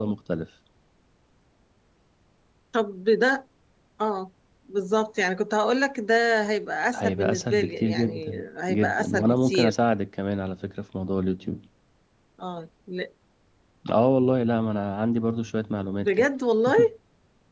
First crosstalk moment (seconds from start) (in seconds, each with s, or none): 7.0 s